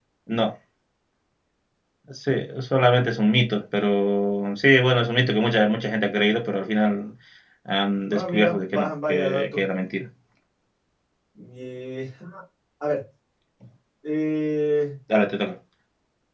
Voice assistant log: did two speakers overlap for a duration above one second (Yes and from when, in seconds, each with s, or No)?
Yes, from 8.1 s